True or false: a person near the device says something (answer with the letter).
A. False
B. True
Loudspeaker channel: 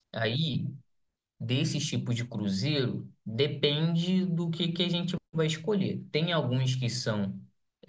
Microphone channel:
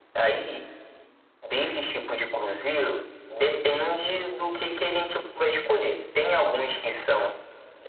A